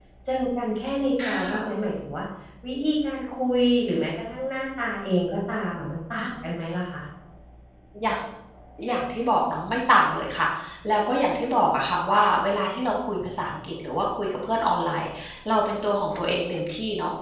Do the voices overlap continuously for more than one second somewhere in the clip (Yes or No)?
No